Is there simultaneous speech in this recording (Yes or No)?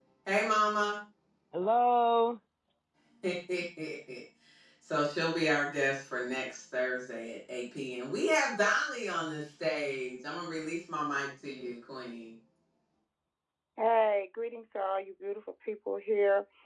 No